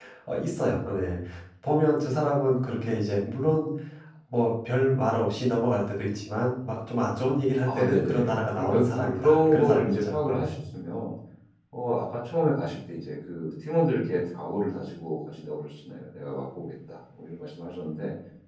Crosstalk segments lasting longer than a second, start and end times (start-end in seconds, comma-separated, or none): 7.6-10.5